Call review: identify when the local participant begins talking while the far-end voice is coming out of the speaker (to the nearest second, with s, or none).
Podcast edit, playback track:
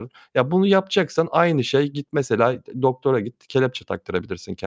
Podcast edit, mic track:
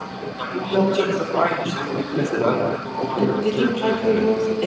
3 s